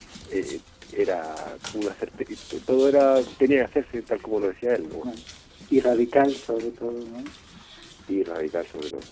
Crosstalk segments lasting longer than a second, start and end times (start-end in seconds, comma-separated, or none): none